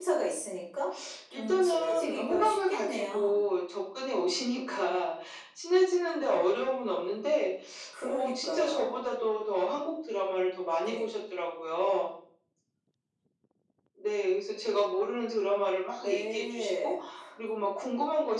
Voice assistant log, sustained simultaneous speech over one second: present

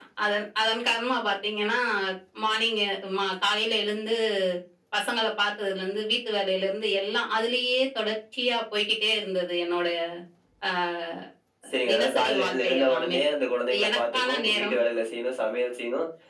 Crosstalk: present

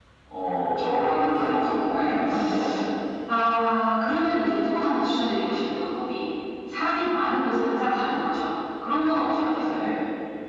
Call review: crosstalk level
present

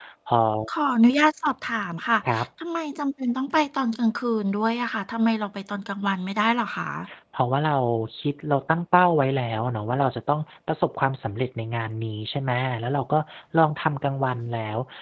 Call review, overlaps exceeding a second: none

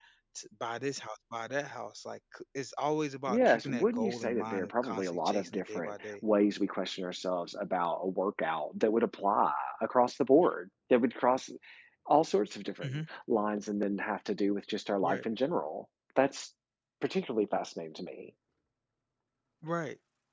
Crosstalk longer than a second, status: present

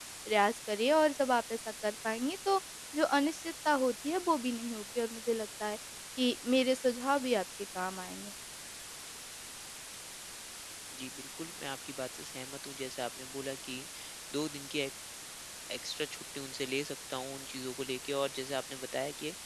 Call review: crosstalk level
none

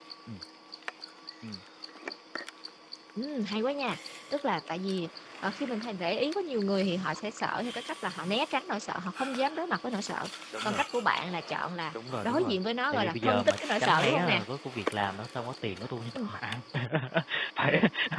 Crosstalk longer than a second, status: present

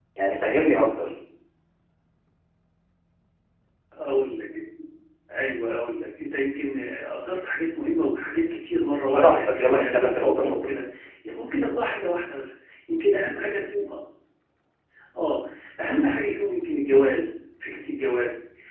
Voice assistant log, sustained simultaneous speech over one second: present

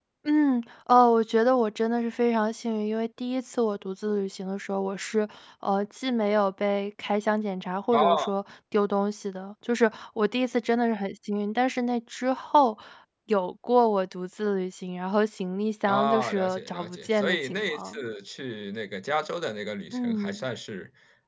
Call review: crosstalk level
present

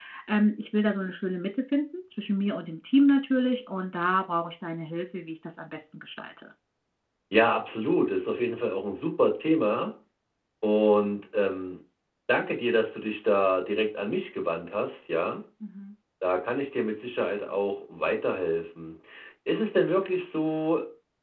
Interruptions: none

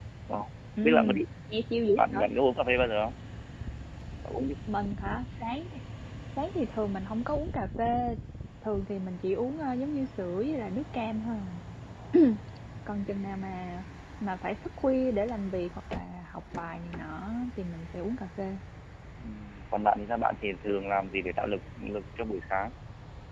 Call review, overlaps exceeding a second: none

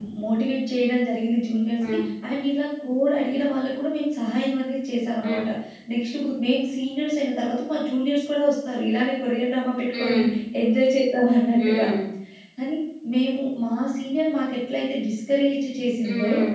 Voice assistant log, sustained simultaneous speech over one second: none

